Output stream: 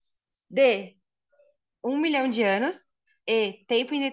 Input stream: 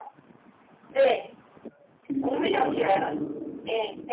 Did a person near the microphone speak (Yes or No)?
Yes